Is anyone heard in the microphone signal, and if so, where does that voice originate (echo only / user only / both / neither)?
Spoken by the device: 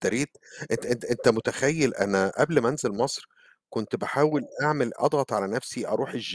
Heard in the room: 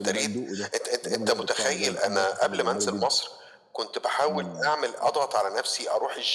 both